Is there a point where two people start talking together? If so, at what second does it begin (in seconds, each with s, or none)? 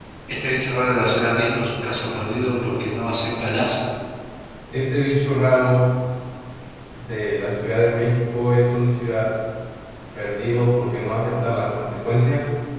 none